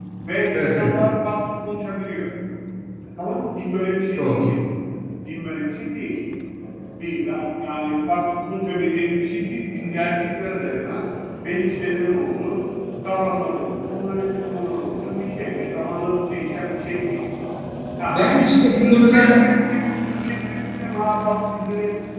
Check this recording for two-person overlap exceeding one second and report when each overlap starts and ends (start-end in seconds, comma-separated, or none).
18.1-19.4